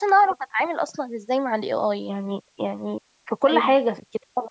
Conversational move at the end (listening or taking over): listening